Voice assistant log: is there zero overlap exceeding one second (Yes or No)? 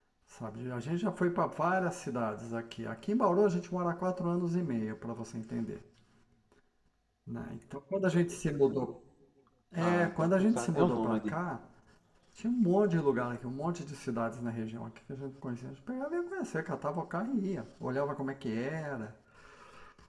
No